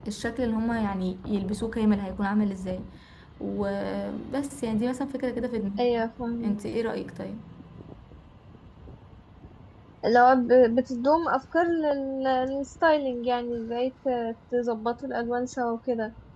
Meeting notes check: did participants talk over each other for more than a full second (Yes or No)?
No